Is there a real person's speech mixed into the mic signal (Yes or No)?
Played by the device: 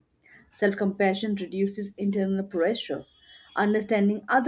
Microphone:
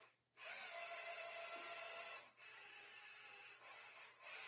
No